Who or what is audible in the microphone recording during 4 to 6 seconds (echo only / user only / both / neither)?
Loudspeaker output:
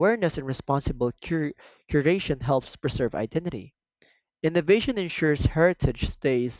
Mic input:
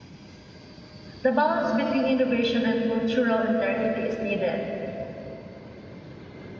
user only